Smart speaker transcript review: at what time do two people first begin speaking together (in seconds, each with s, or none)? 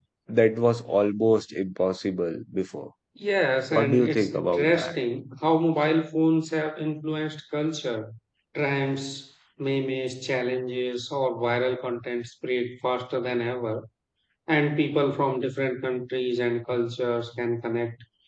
3.7 s